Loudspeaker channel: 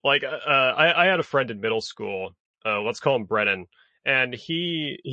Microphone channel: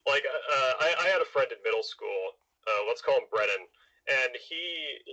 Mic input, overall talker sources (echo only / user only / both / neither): echo only